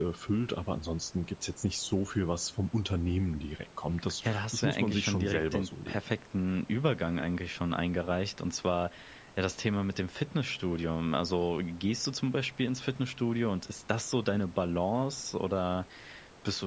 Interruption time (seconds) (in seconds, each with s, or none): 4.2 s